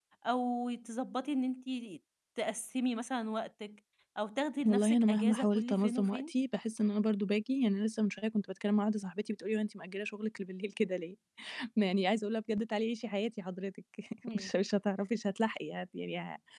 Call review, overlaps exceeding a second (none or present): present